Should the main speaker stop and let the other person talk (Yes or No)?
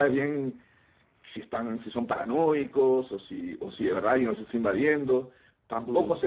No